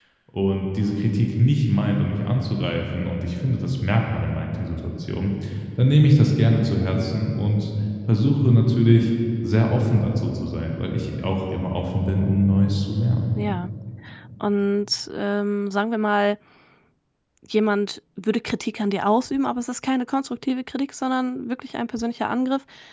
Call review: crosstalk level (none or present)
none